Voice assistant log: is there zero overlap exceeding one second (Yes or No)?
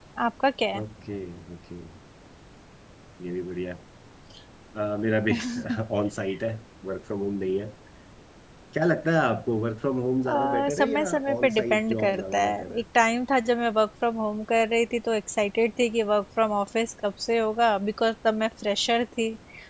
No